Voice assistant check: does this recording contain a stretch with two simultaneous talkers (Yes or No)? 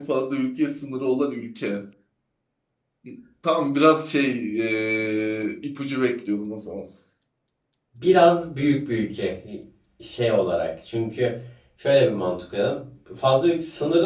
No